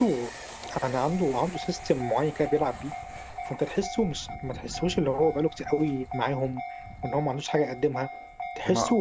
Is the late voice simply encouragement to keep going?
Yes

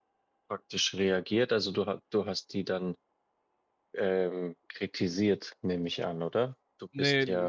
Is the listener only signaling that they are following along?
No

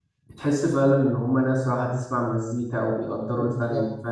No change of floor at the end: No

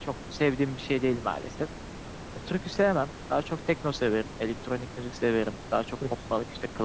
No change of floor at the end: Yes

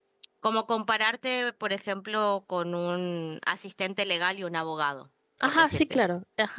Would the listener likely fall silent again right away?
No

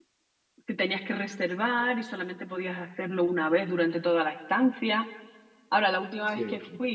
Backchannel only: Yes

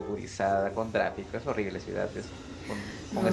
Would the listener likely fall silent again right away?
No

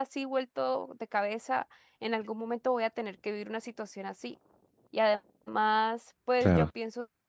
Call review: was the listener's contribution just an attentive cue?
Yes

